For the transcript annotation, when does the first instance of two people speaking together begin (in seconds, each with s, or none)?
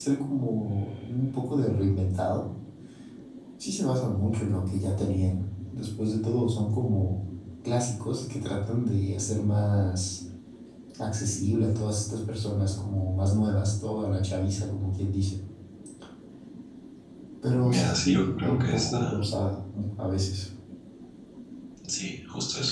17.6 s